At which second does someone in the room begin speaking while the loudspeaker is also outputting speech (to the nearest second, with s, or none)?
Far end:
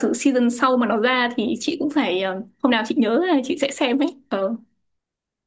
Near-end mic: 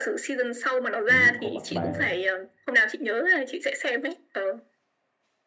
1 s